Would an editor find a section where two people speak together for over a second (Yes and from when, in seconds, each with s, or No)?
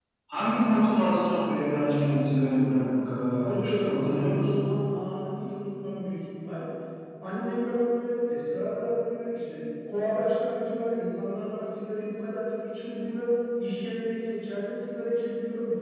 Yes, from 3.3 s